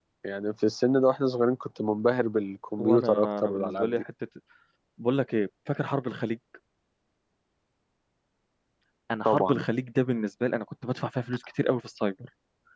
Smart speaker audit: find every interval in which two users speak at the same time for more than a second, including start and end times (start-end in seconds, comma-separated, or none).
2.8-4.0